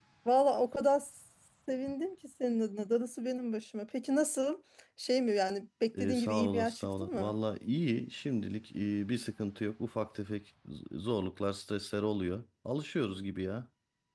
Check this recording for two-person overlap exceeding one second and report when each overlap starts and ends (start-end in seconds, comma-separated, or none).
6.0-7.3